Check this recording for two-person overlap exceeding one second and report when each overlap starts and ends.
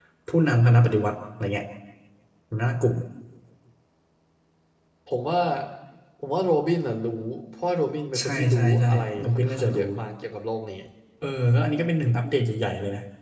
8.2-9.8

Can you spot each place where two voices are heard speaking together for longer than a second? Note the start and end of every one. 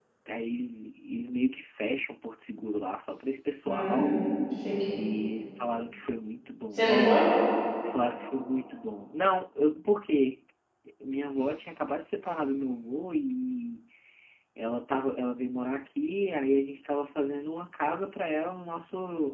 none

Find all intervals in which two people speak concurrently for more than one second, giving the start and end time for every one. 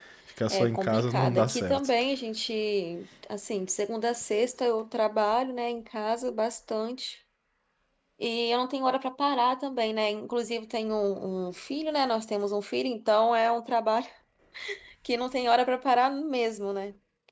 0.5-1.9

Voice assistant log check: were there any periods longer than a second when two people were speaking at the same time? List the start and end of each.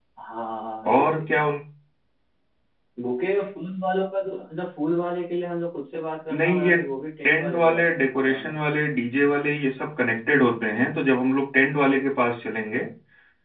7.2-8.6

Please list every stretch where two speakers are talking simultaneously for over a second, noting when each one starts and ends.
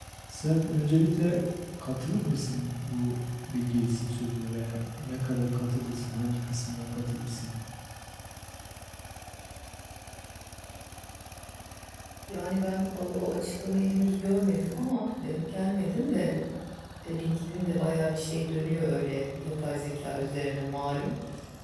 none

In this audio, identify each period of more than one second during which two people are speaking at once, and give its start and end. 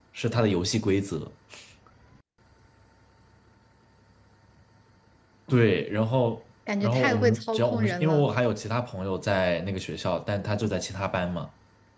6.8-8.3

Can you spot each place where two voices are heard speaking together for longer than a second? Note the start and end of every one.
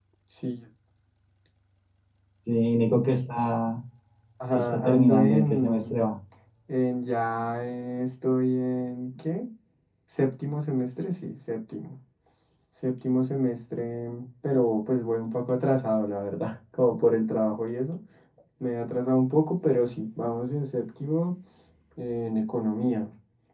4.5-5.9

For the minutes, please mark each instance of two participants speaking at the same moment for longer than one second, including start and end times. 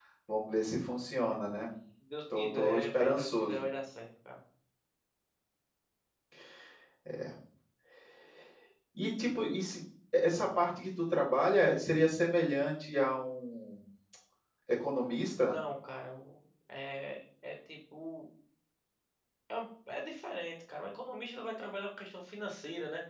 2.3-3.6

